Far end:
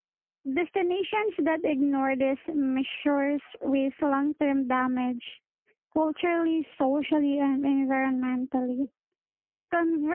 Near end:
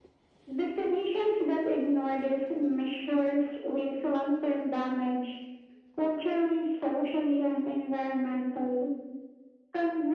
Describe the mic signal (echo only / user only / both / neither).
echo only